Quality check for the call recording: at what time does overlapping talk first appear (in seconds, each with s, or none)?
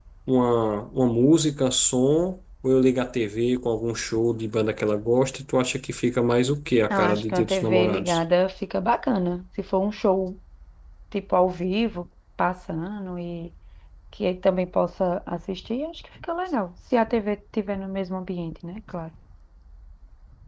6.9 s